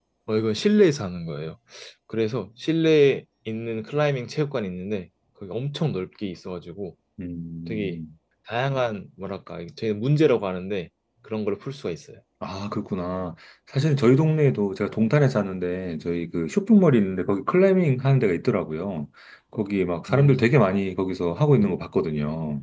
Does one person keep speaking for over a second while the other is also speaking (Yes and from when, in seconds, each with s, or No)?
No